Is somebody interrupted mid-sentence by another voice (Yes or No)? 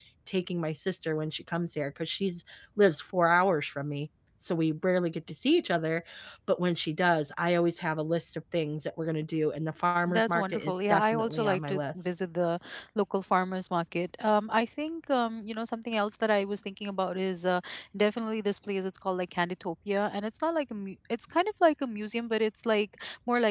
Yes